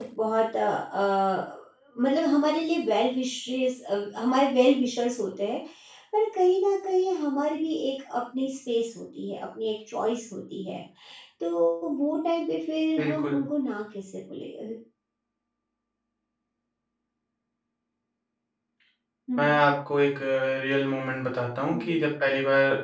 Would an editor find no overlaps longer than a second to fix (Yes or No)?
Yes